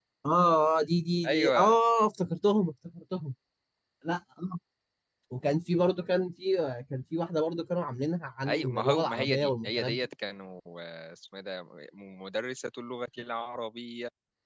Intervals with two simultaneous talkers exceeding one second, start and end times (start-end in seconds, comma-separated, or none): 8.5-10.1